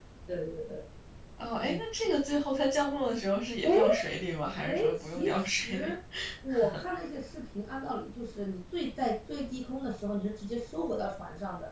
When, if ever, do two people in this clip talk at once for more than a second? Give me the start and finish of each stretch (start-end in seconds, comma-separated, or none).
4.7-5.9